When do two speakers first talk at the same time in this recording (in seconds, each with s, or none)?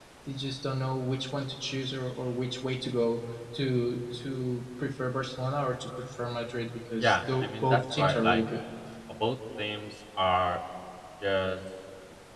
7.0 s